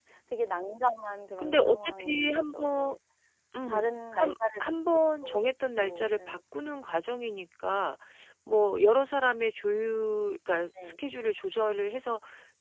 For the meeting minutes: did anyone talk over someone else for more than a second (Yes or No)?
Yes